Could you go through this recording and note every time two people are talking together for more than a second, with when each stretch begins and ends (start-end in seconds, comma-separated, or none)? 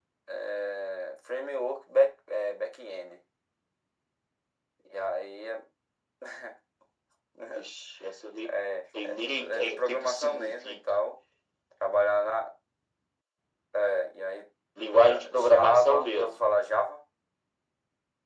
9.0-10.8, 15.0-16.4